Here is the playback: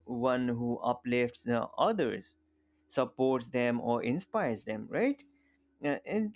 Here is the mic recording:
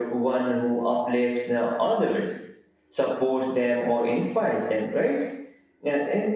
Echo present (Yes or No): Yes